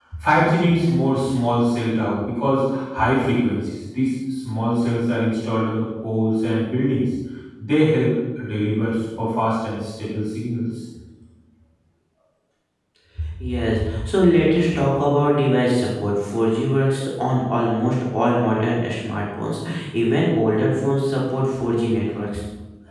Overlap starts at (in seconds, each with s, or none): none